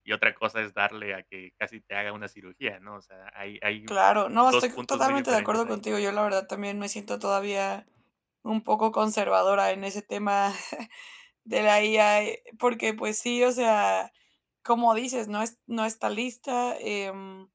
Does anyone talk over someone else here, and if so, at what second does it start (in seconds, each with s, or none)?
4.5 s